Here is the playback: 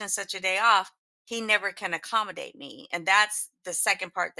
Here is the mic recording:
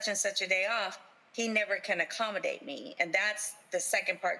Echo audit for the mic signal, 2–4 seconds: echo only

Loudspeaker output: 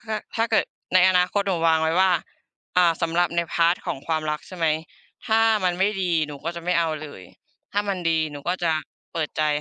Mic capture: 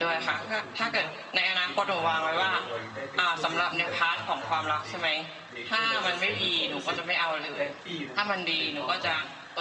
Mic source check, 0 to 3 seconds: both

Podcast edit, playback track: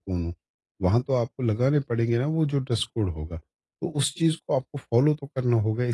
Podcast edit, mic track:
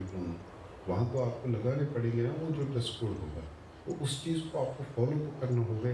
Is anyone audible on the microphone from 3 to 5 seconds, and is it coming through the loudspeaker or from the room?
echo only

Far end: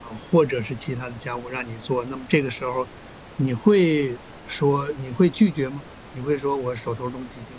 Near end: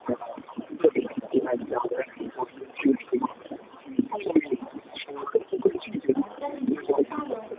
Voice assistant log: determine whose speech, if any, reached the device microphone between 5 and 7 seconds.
both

